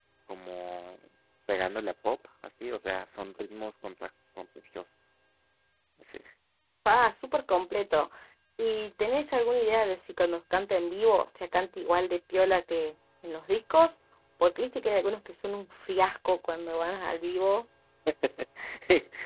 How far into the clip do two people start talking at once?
none

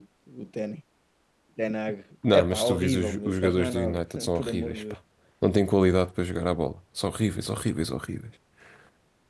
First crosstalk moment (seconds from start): 2.3 s

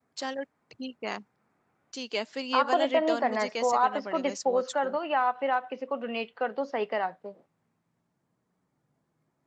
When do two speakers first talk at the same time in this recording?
2.5 s

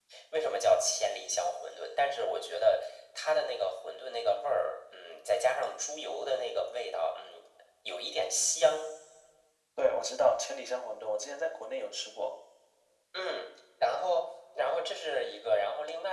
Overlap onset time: none

